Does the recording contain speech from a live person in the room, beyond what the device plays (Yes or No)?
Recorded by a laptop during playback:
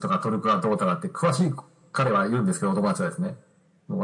No